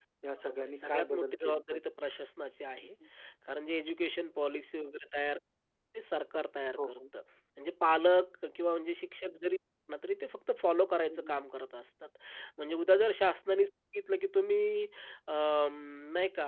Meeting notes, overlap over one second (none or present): present